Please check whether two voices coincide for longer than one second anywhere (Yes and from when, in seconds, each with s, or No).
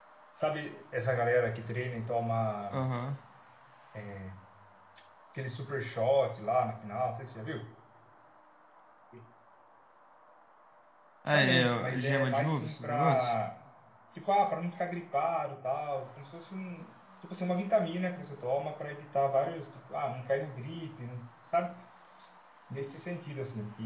Yes, from 11.3 s